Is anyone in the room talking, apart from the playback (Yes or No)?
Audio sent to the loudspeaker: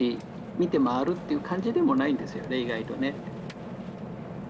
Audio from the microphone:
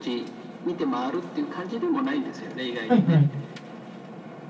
Yes